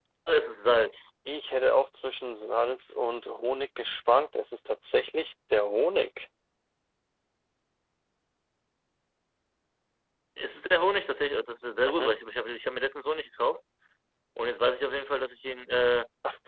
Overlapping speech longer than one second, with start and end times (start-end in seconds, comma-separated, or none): none